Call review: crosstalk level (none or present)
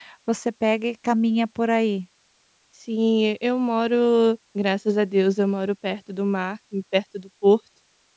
none